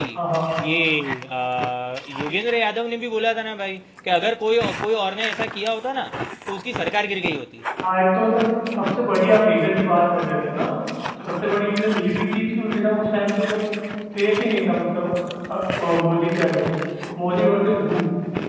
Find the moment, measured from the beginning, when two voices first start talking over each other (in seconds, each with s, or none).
none